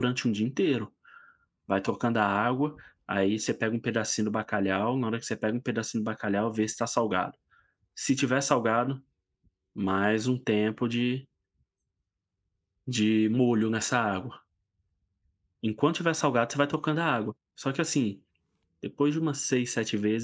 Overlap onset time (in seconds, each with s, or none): none